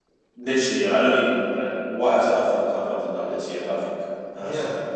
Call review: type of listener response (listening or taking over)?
taking over